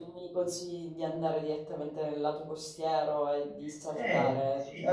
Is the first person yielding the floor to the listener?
Yes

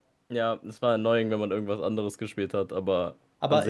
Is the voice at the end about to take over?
Yes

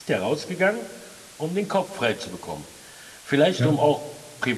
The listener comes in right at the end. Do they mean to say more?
No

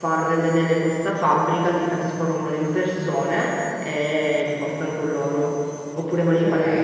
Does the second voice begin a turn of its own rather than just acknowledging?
Yes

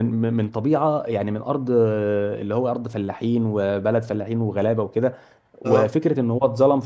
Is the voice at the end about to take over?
No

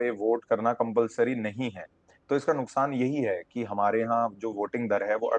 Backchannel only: Yes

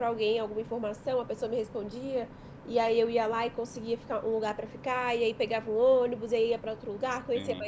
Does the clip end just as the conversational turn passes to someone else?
No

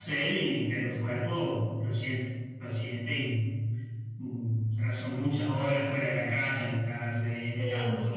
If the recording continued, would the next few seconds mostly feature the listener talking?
Yes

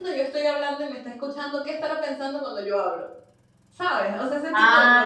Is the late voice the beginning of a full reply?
Yes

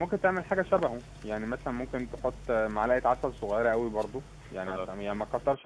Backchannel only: Yes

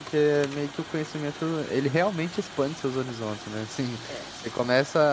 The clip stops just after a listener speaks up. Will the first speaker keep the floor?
Yes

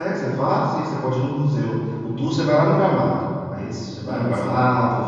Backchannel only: Yes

